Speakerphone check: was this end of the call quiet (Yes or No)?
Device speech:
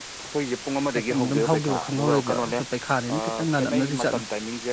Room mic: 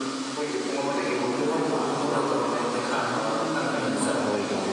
No